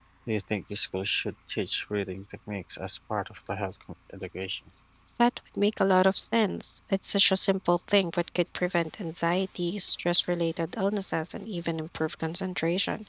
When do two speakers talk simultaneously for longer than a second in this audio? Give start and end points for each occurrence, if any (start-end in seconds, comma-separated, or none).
none